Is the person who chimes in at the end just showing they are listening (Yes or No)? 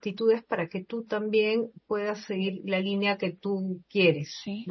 No